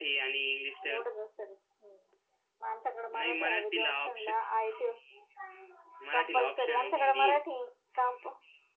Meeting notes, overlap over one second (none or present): present